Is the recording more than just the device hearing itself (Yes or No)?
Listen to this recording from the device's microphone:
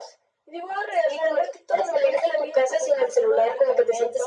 No